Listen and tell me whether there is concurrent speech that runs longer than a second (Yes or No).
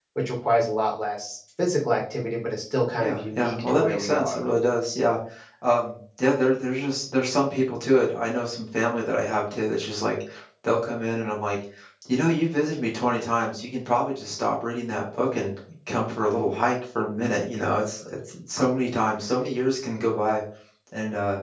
Yes